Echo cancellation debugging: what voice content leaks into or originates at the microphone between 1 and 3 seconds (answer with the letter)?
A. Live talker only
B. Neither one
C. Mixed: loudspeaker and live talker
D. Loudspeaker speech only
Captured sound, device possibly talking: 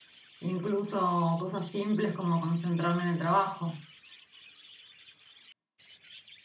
D